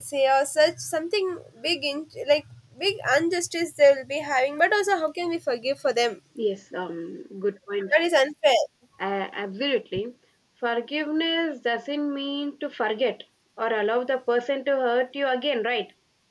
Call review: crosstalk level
none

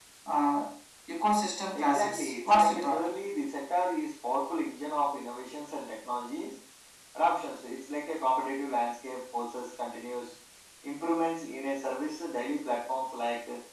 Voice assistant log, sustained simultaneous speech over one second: present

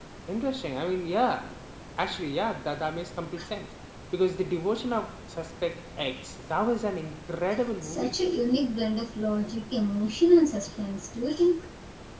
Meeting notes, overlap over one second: none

